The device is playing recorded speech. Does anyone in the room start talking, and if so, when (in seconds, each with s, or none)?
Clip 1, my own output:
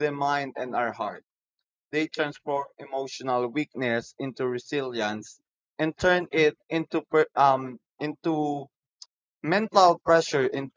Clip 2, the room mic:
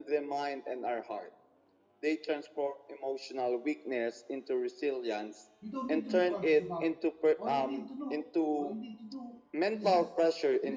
5.6 s